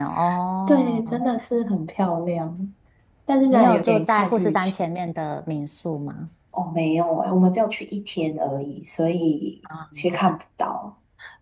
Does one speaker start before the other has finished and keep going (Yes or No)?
Yes